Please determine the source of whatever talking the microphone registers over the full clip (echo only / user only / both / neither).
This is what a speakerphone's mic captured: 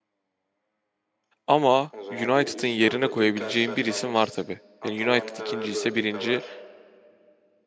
both